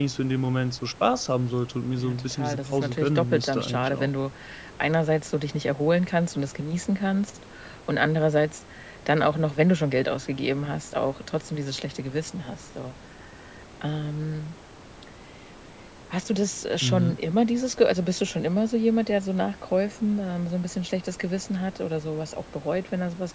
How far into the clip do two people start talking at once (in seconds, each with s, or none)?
2.0 s